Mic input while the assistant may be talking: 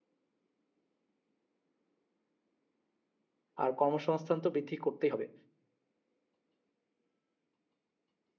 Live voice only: আর কর্মসংস্থান তো বৃদ্ধি করতেই হবে

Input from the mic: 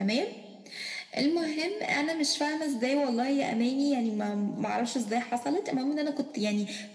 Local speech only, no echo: none

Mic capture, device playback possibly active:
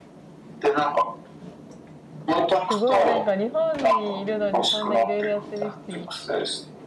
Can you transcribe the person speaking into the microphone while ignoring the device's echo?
すごい。なんか日本にいるのにそんないろいろやってる人い、

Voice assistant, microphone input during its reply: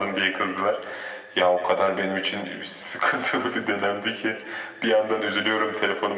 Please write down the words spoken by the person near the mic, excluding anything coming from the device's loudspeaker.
none

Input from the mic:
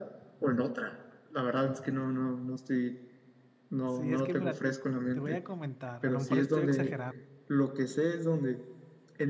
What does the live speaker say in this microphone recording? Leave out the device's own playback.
Sí, es que mira, te, te voy a comentar. A lo mejor estoy exagerando.

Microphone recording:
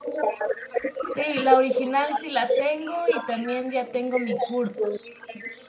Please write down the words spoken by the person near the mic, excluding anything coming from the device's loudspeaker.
Sí, la original sí la tengo y también ya tengo mi CURP.

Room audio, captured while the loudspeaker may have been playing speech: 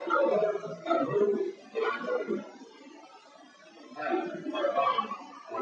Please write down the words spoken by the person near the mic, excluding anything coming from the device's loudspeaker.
none

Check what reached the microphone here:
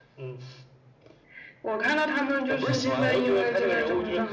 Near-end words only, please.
嗯嗯

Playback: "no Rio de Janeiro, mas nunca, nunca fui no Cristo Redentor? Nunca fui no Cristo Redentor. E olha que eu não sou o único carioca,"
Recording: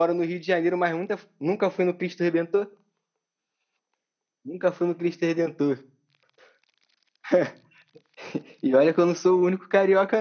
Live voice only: none

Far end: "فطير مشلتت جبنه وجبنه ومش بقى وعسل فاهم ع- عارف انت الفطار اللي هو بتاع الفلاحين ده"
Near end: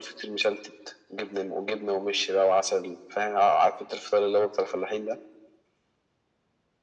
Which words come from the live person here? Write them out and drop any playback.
none

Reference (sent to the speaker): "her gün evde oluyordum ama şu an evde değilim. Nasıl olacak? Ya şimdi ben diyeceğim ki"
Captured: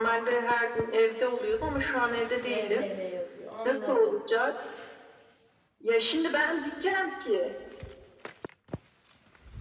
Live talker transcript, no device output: VHL yazıyor. Anladım.

